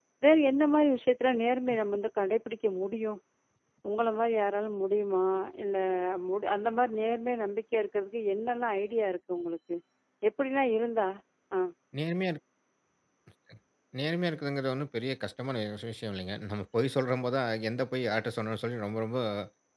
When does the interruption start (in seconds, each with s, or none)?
none